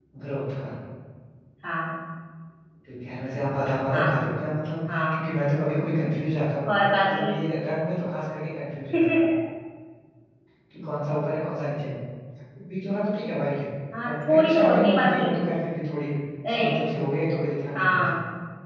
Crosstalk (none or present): present